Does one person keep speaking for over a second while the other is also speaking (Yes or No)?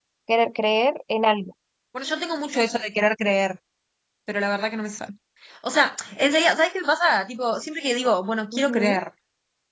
No